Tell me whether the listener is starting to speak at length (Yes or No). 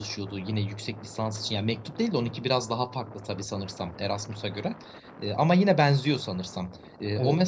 No